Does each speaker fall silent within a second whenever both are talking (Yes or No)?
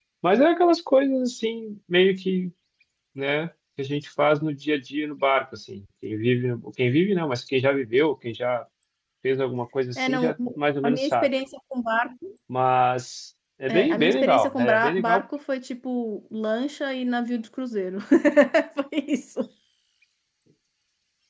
No